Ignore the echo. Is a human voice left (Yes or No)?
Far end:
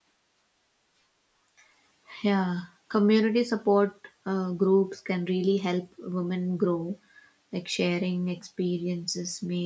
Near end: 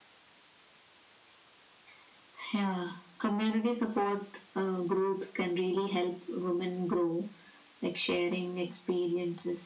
No